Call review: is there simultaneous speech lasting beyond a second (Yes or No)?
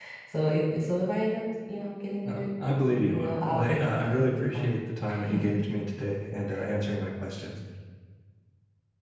Yes